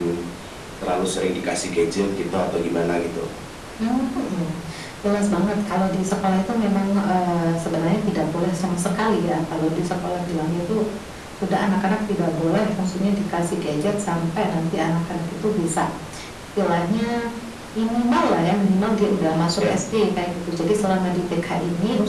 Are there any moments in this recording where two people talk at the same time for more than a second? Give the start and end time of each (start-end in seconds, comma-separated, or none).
none